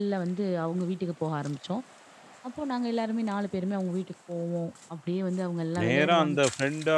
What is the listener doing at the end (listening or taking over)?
taking over